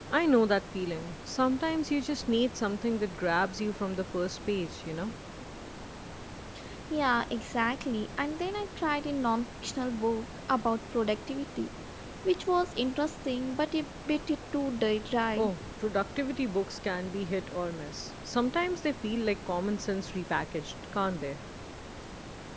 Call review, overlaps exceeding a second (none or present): none